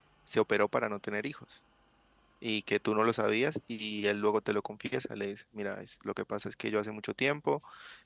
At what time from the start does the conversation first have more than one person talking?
none

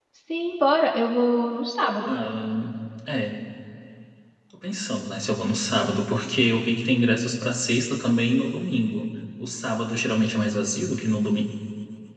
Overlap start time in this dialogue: none

